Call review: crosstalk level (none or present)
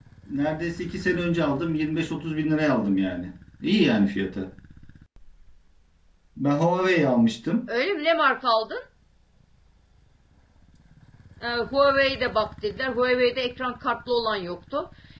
none